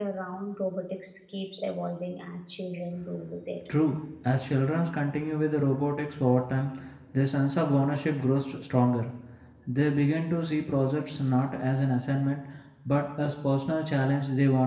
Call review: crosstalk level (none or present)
none